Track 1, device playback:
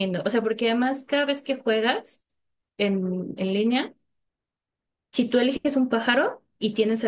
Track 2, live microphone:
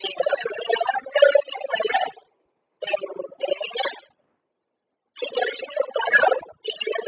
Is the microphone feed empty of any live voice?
Yes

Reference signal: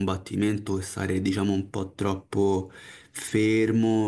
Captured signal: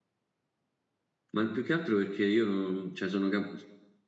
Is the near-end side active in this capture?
Yes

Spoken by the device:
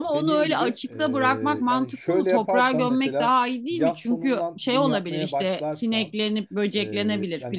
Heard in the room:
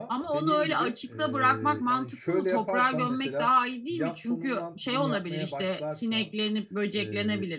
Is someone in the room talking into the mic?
No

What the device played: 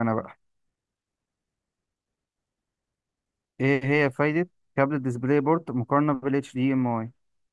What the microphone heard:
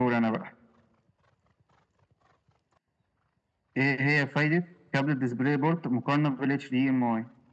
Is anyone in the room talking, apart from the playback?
No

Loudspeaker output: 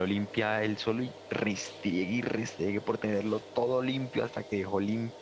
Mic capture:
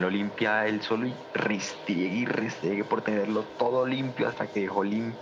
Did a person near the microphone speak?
No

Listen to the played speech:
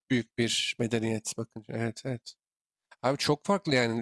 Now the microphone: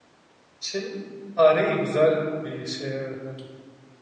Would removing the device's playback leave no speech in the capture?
No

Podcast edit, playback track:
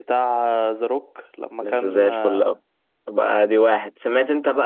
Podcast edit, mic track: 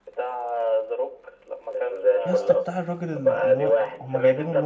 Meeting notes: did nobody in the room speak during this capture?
No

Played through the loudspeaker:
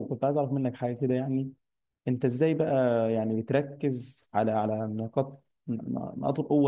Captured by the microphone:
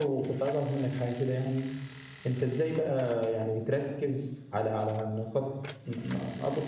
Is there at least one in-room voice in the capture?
No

